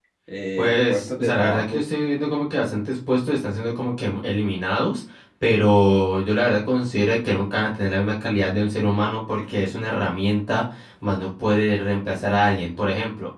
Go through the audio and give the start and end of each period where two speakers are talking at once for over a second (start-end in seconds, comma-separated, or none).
0.6-1.8